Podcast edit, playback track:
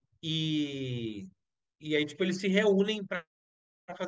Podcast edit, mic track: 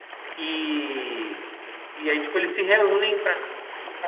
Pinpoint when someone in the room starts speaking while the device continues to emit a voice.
none

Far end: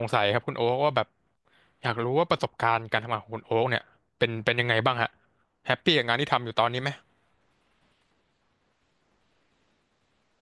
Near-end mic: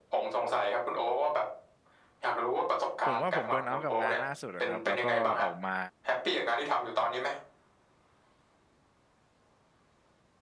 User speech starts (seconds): 3.0 s

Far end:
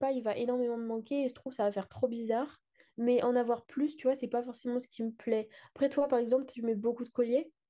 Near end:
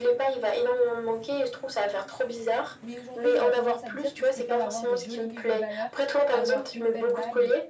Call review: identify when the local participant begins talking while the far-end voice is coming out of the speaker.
2.8 s

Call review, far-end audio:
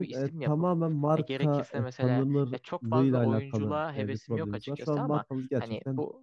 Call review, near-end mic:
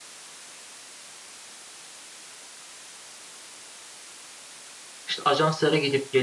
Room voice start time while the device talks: 5.1 s

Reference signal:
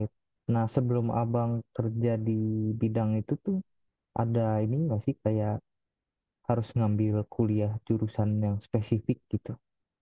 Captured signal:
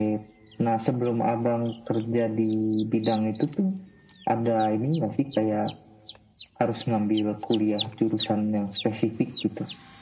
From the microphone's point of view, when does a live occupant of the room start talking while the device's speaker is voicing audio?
none

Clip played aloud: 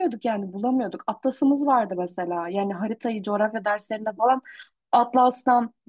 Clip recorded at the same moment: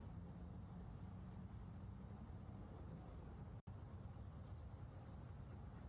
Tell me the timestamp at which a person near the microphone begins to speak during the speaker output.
none

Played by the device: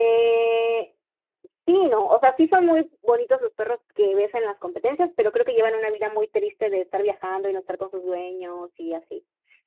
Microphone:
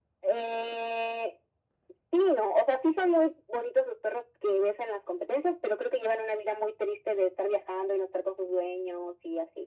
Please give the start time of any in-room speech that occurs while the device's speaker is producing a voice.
none

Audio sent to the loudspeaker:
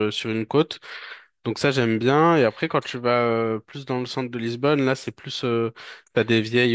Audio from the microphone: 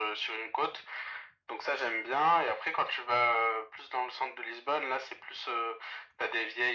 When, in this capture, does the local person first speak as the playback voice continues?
none

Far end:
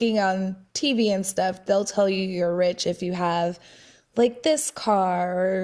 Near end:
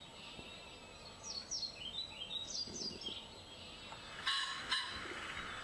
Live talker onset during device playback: none

